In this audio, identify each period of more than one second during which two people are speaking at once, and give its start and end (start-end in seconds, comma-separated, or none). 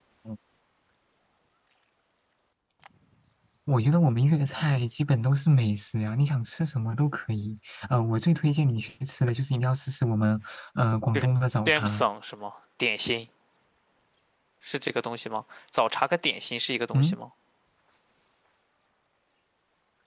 none